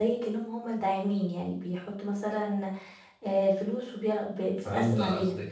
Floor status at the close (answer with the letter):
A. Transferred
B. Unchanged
A